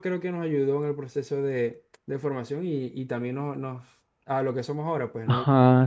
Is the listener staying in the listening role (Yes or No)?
No